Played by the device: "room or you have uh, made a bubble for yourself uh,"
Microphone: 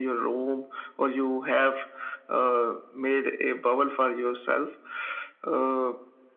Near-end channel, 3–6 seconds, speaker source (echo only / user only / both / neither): echo only